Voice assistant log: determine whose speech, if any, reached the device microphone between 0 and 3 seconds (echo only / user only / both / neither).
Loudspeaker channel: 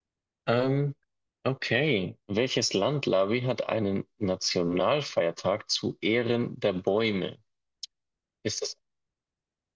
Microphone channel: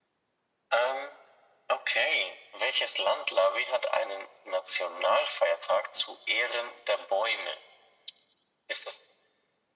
echo only